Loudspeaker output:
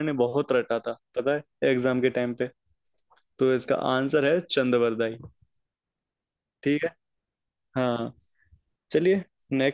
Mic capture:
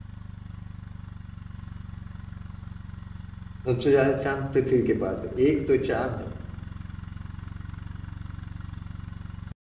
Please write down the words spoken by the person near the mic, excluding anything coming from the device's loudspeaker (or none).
सबसे ज्यादा चांद पृथ्वी के पास है एक तो चांद है